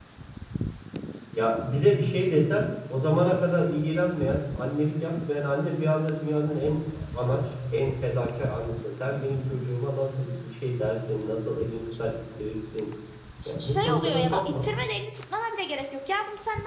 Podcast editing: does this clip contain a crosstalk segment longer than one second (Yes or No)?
Yes